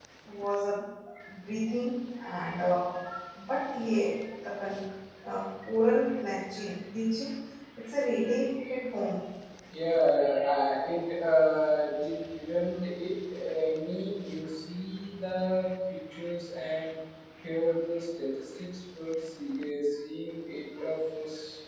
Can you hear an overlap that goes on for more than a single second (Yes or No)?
No